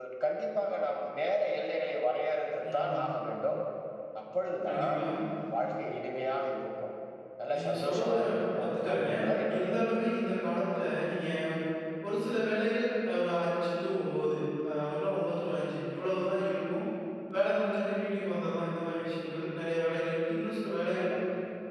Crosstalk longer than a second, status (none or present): present